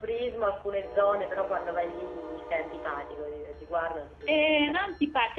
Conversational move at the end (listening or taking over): taking over